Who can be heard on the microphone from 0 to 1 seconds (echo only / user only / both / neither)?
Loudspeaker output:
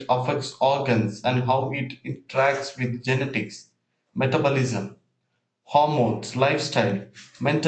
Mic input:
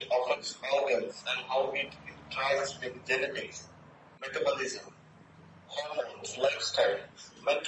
echo only